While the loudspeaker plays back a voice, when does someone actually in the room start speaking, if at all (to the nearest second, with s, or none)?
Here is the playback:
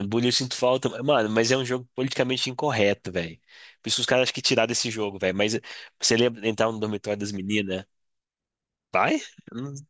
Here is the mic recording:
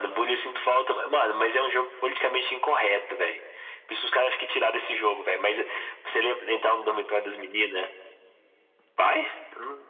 none